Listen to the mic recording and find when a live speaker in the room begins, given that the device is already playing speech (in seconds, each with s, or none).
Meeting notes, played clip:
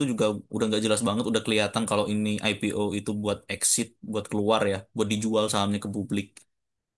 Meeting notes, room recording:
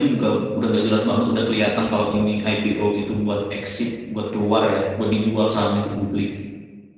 none